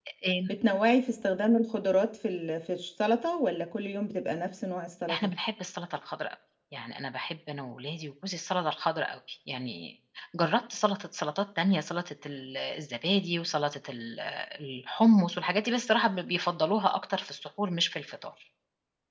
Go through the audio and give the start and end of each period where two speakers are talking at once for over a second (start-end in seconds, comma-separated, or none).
none